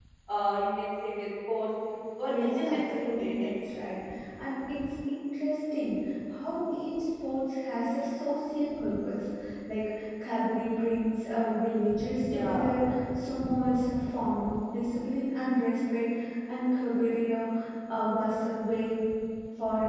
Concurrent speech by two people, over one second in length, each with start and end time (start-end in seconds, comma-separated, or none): 2.3-3.5